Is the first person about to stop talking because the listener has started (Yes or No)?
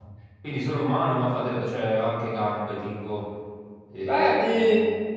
Yes